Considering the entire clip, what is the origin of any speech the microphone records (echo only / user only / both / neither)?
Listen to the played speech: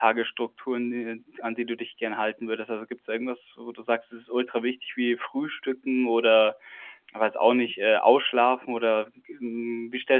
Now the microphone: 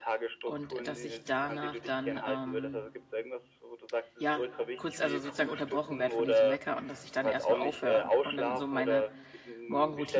both